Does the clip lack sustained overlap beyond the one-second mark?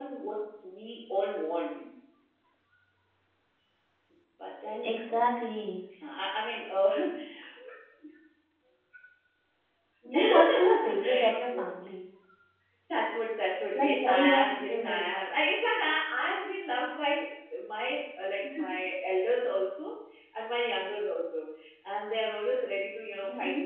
No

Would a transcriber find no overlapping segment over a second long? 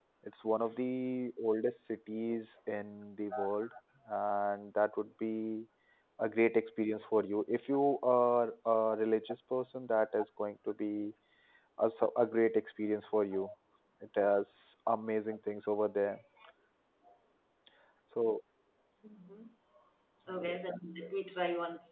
Yes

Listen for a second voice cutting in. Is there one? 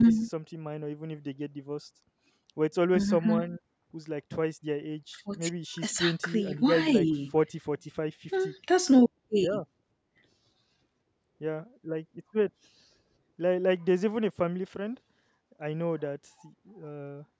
Yes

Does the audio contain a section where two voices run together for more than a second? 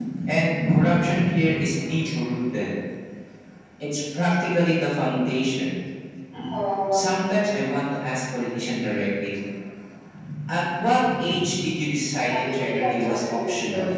Yes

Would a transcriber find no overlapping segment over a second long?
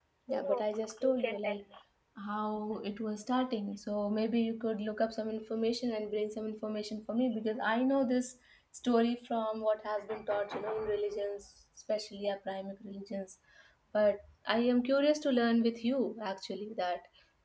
No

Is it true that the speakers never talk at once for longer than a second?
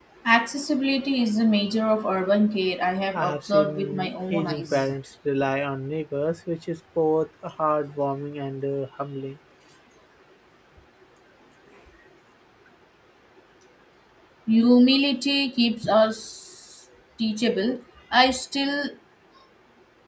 No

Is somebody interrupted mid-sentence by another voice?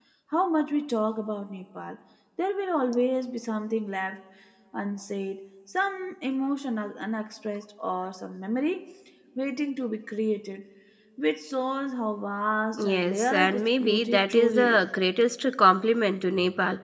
Yes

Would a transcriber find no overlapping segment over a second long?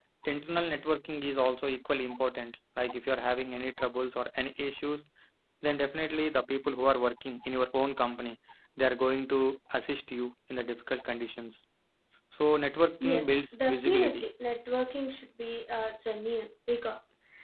No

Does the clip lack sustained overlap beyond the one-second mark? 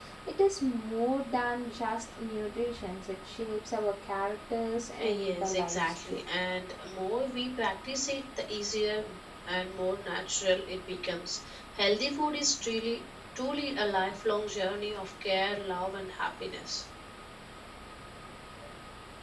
No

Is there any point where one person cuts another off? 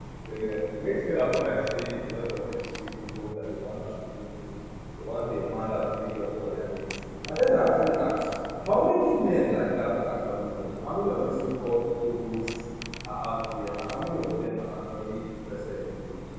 No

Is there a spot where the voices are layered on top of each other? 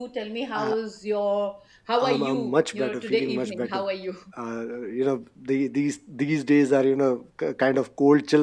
Yes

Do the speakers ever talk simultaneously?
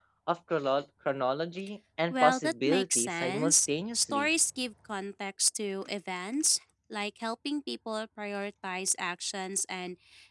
Yes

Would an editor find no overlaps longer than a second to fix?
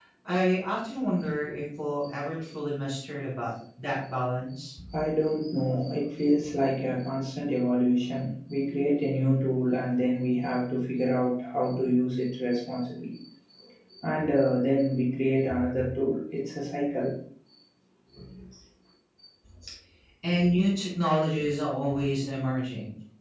Yes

